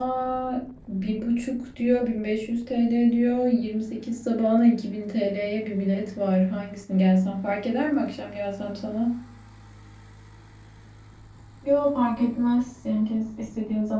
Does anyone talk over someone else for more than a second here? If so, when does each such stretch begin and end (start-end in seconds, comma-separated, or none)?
none